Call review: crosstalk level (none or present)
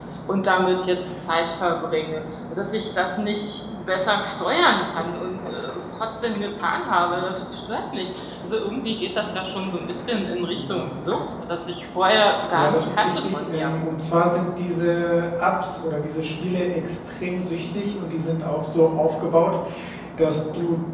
present